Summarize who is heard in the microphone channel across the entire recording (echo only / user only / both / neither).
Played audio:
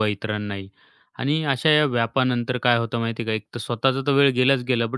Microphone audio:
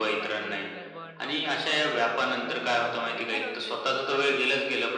both